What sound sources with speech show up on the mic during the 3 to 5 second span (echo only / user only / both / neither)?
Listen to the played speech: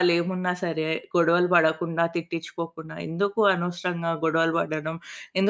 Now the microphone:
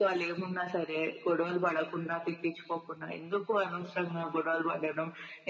echo only